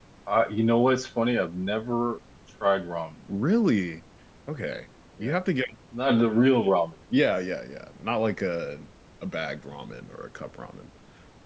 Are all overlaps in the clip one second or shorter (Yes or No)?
Yes